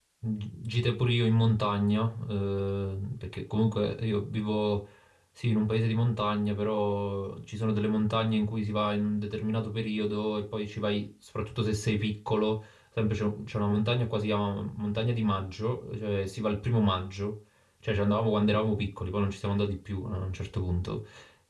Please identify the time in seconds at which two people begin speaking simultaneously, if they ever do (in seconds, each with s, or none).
none